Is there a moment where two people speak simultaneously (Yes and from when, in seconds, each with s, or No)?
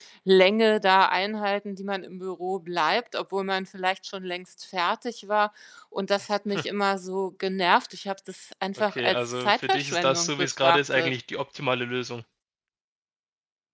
Yes, from 8.9 s